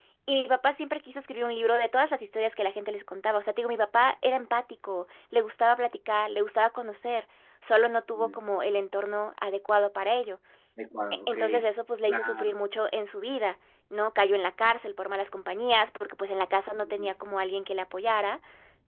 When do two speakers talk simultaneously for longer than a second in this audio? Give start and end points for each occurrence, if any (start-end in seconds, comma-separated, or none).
none